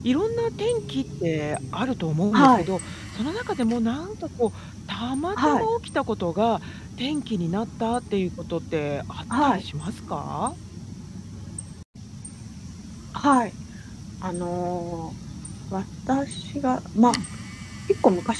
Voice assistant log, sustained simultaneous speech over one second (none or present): none